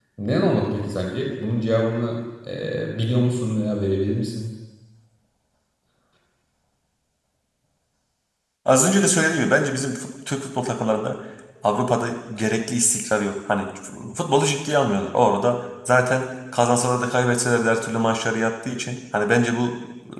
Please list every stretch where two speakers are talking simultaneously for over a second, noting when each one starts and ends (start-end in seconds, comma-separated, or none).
none